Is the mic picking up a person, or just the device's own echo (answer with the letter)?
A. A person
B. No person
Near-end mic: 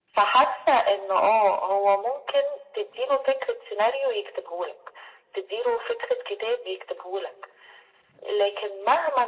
B